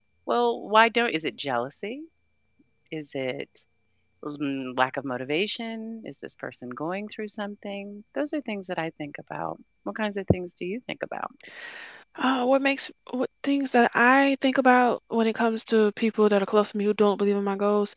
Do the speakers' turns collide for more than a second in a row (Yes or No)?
No